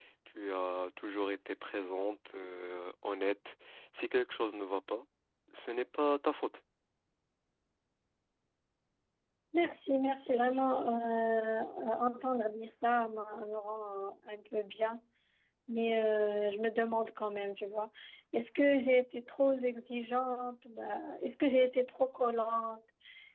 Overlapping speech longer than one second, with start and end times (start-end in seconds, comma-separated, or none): none